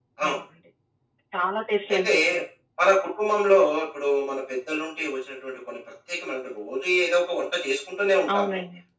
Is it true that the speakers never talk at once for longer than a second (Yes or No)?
Yes